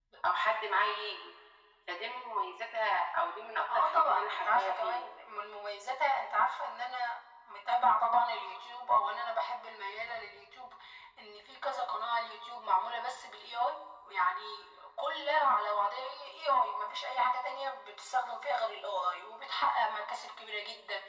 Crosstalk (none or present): present